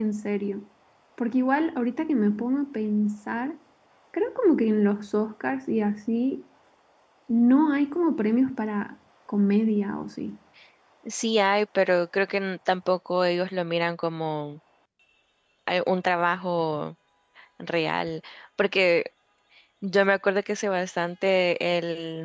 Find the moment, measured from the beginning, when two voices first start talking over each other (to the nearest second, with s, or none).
none